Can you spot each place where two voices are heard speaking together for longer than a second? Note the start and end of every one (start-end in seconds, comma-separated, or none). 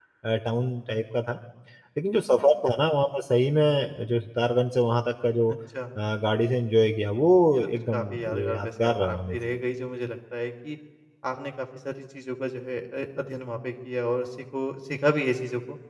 7.5-9.4